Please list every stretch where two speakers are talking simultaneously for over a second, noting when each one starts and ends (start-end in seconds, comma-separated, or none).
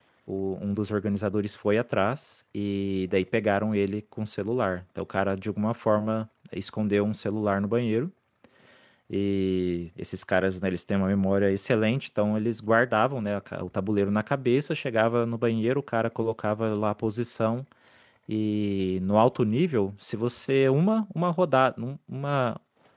none